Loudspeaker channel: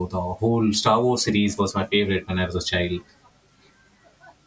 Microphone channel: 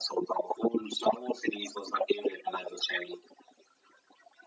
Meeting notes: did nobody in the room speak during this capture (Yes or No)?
Yes